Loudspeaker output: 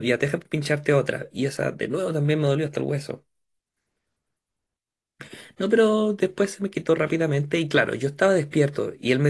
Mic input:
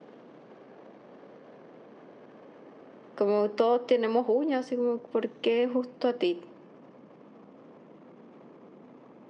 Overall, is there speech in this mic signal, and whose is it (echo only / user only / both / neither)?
user only